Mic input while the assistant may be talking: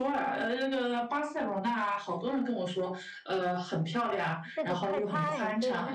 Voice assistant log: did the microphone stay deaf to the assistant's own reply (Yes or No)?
No